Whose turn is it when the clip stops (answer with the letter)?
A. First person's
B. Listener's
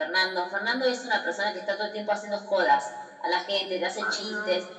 A